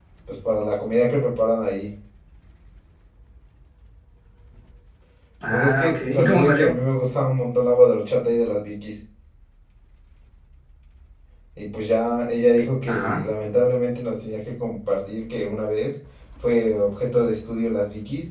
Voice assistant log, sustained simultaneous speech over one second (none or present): present